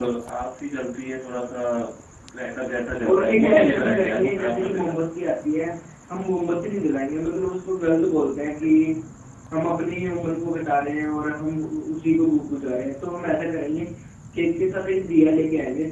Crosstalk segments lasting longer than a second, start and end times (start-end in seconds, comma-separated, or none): 3.1-5.0